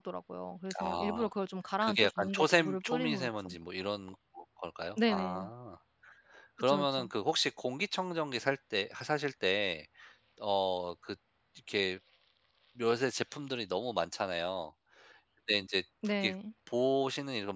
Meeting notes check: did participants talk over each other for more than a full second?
Yes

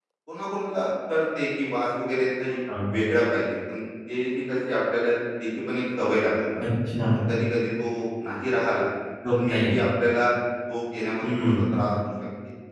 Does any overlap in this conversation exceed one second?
No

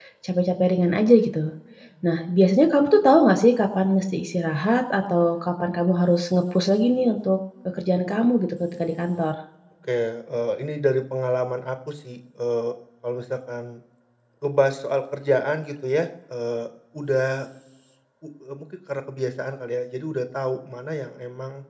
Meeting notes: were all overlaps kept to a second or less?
Yes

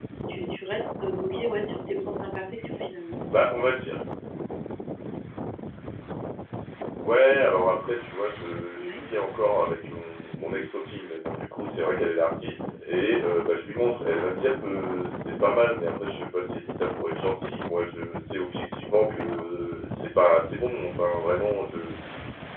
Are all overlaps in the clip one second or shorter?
Yes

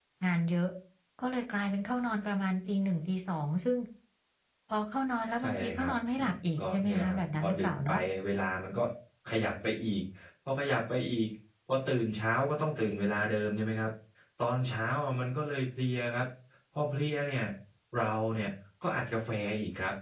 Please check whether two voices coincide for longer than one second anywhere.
Yes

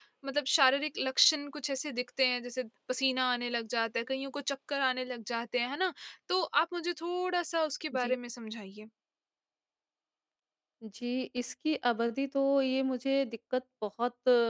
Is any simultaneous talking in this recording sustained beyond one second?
No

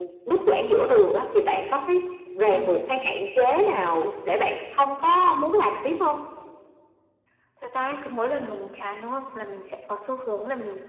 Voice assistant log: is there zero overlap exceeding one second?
Yes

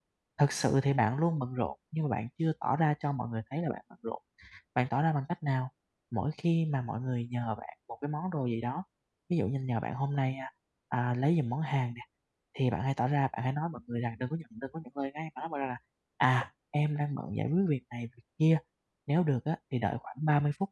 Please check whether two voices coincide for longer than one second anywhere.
No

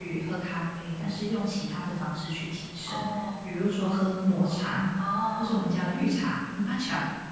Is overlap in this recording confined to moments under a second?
Yes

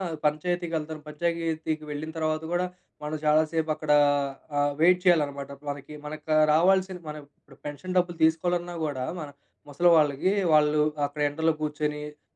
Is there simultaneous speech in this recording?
No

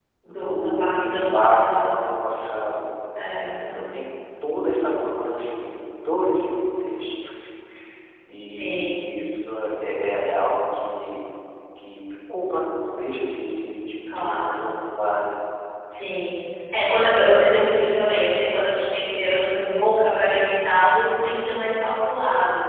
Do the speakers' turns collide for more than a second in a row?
Yes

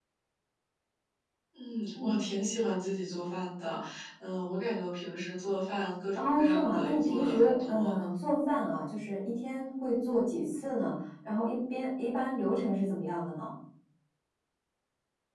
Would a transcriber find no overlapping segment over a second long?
No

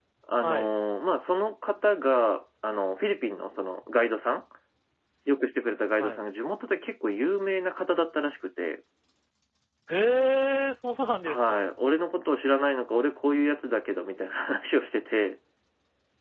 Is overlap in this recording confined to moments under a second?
Yes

